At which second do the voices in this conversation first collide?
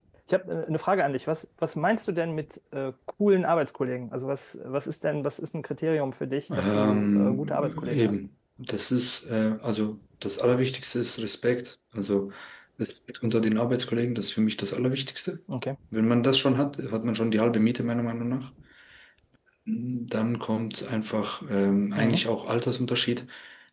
6.6 s

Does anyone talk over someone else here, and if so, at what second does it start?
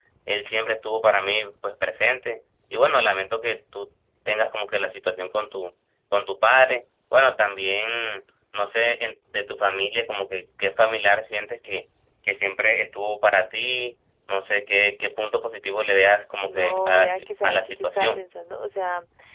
16.4 s

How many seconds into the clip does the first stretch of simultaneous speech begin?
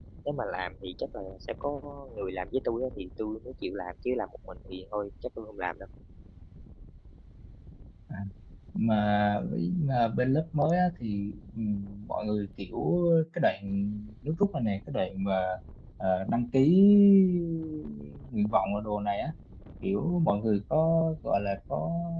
none

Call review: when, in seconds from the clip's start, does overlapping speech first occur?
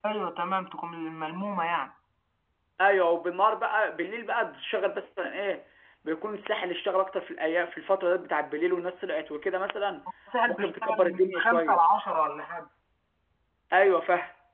10.5 s

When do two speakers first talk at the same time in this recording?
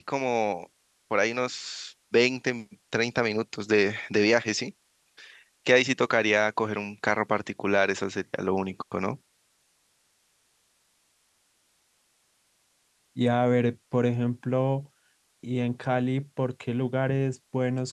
none

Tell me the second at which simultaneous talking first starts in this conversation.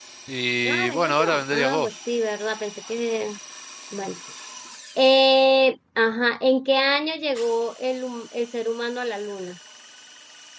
0.6 s

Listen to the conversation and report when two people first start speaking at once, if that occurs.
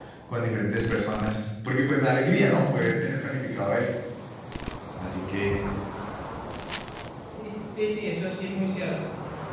none

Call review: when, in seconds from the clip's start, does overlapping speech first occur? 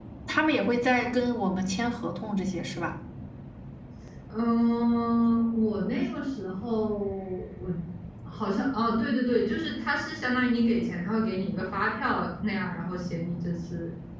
none

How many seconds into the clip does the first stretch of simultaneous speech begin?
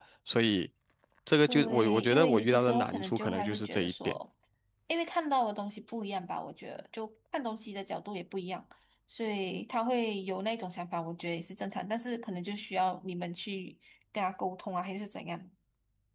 1.5 s

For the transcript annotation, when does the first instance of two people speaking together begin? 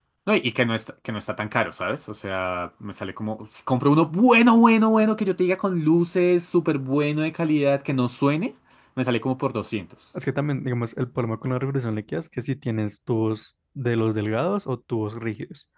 none

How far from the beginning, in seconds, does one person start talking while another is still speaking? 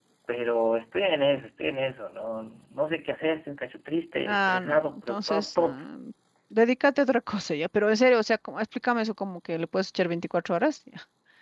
4.2 s

